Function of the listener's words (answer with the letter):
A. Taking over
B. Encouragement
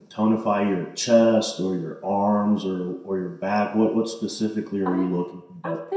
A